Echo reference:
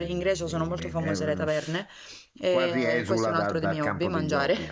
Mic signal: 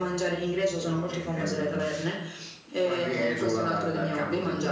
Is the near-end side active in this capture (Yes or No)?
No